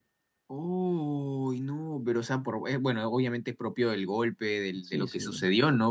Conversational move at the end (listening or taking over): listening